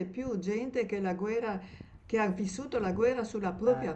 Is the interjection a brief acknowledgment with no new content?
Yes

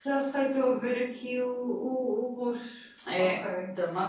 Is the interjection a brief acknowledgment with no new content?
No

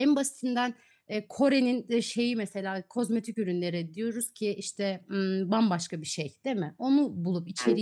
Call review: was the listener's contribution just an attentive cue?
Yes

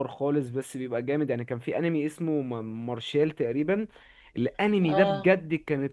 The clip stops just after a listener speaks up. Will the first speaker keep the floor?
Yes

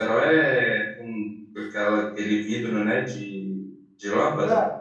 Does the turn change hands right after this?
Yes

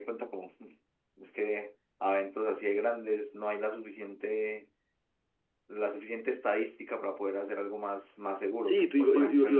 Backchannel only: No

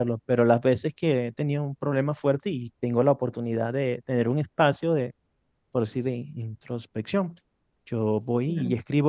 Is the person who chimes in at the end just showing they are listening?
Yes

